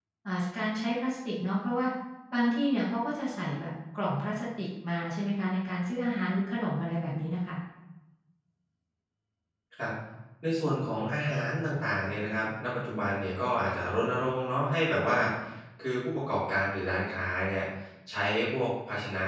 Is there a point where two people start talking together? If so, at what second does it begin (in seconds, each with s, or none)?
none